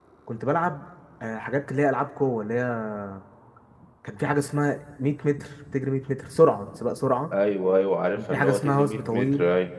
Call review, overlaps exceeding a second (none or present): present